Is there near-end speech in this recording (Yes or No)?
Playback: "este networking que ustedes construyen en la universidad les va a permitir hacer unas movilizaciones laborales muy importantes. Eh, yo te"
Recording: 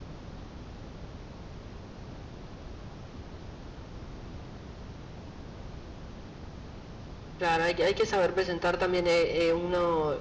Yes